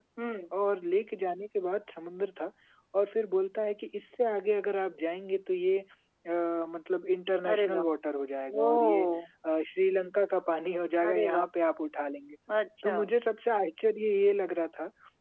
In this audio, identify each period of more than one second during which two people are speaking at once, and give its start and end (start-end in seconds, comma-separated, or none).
none